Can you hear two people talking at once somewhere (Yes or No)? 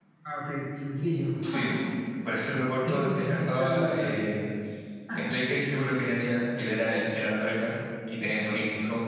Yes